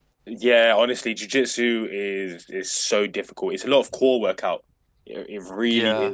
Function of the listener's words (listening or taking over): listening